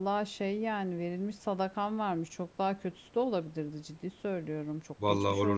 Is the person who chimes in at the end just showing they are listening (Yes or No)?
No